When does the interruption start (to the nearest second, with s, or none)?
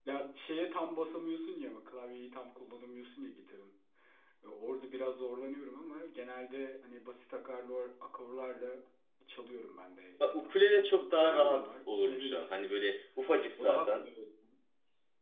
10 s